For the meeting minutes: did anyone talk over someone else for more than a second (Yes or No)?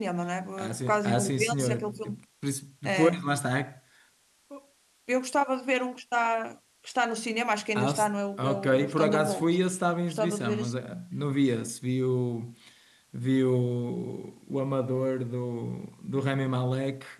Yes